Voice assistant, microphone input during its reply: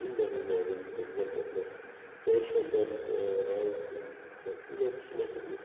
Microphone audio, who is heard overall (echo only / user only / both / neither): echo only